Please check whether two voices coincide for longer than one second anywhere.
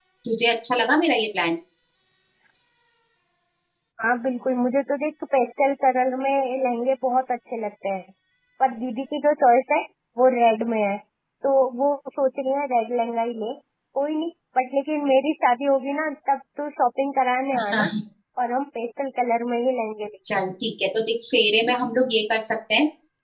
No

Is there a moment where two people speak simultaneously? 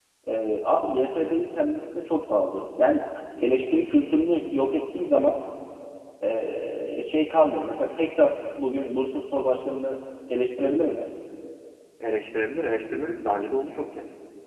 No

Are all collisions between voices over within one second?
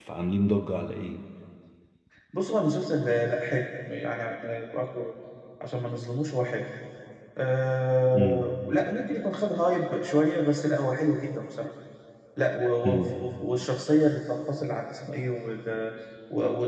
Yes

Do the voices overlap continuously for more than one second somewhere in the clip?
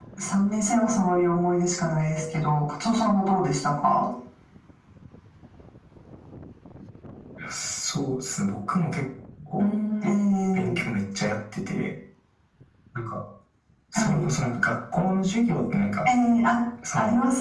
No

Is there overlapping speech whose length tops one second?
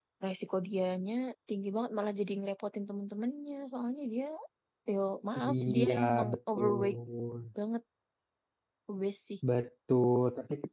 Yes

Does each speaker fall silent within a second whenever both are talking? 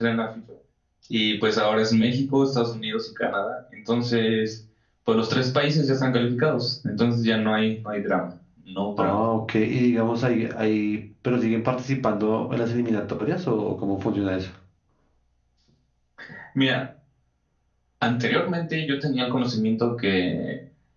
Yes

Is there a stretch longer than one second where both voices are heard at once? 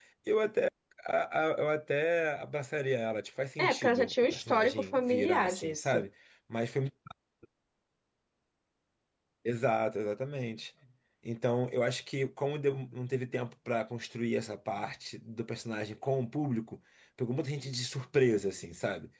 Yes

